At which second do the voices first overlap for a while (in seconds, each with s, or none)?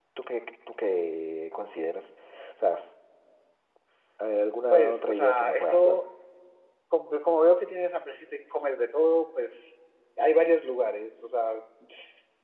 4.7 s